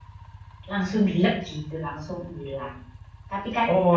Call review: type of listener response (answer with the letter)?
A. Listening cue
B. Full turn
A